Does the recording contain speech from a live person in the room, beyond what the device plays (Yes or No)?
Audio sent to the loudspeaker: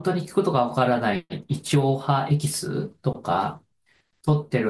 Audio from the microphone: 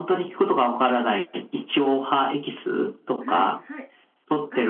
Yes